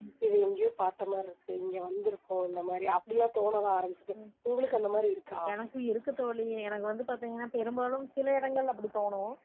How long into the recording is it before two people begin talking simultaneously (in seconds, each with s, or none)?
none